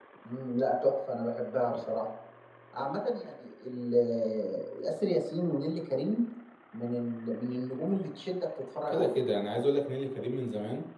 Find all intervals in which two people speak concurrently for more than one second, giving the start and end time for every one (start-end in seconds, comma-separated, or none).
none